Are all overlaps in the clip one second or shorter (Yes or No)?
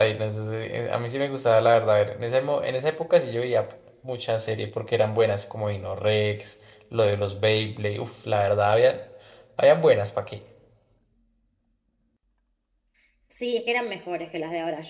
Yes